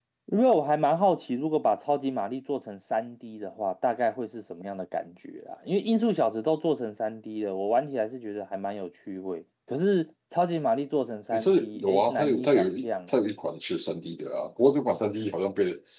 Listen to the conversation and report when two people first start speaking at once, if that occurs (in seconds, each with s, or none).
11.3 s